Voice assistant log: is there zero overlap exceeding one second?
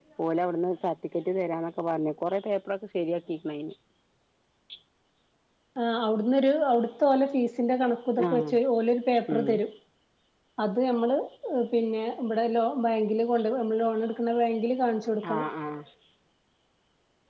Yes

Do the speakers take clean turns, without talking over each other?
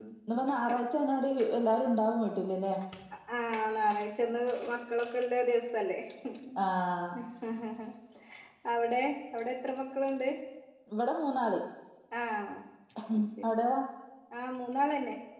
Yes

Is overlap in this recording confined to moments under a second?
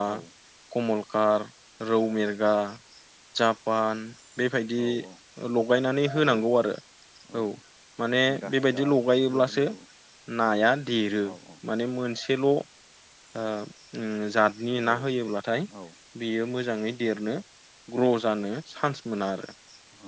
No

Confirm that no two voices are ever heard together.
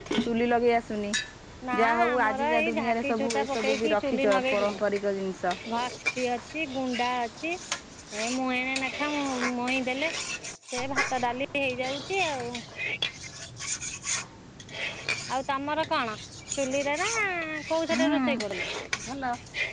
No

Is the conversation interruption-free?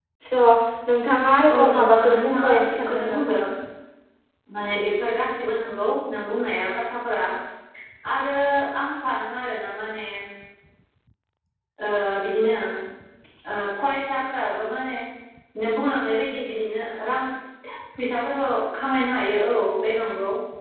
No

